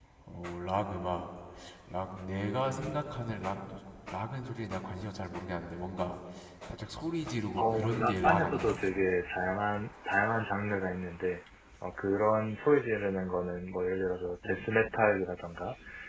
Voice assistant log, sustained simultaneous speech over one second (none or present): present